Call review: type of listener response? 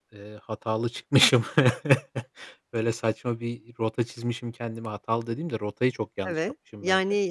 taking over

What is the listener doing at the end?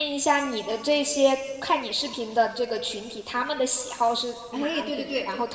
taking over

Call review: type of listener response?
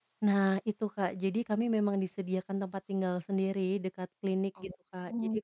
listening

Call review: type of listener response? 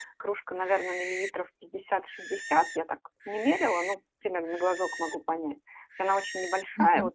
listening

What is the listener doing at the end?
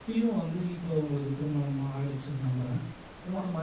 listening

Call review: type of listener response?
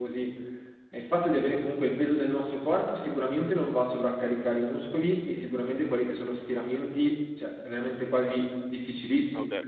taking over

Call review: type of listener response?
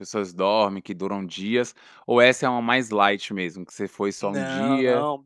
taking over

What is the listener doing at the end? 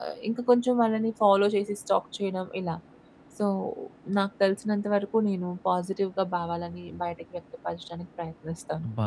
taking over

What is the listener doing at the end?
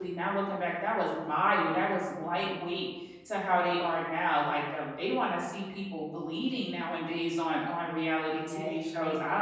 taking over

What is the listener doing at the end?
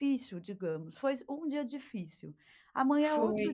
listening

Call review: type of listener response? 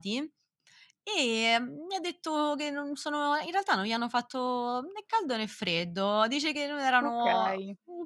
listening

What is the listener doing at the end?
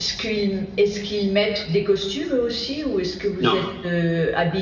listening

